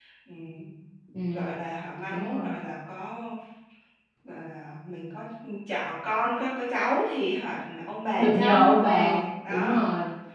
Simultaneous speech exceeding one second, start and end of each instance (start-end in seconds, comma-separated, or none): 8.2-9.8